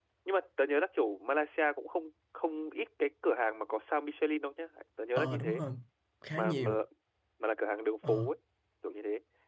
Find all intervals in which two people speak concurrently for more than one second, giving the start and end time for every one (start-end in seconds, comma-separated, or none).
none